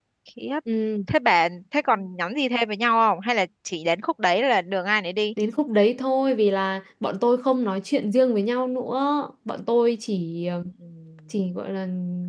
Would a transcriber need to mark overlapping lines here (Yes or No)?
No